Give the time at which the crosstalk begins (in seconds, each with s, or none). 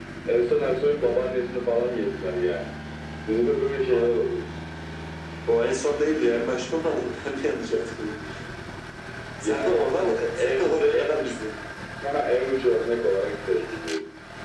9.4 s